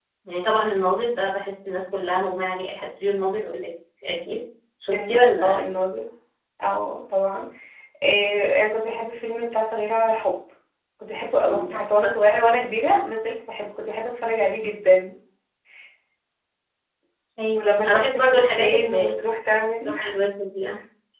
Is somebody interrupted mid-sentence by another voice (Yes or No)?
Yes